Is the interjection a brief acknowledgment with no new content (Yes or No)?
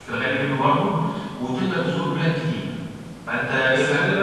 No